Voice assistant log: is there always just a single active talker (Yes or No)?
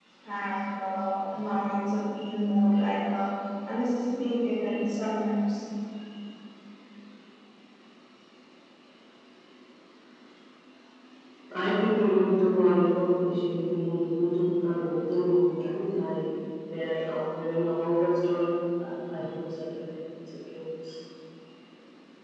Yes